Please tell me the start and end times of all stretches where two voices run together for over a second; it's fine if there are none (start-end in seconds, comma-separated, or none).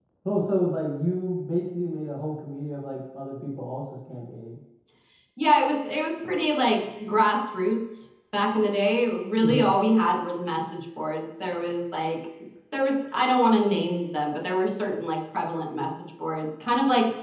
none